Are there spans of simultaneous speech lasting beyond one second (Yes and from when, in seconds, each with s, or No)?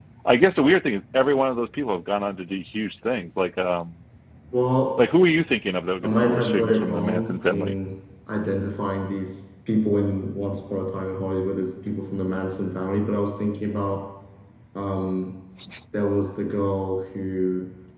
Yes, from 6.0 s